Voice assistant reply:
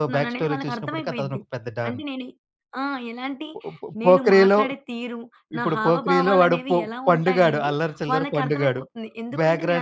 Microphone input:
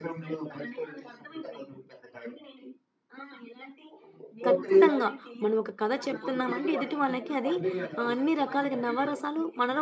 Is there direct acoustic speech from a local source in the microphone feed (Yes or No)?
Yes